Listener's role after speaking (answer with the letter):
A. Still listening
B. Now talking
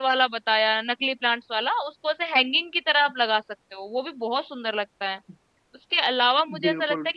A